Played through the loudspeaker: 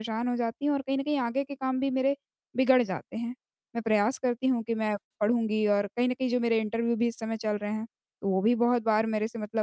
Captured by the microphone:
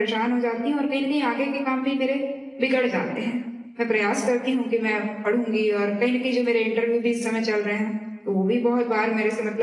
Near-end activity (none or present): none